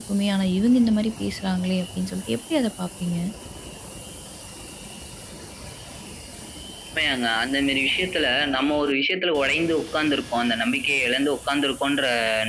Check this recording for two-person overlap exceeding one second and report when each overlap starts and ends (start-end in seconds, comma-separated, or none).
none